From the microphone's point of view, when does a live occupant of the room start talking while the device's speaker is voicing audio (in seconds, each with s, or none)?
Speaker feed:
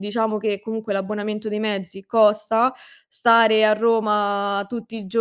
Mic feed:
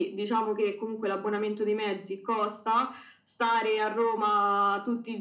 none